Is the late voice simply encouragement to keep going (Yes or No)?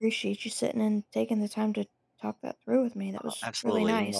No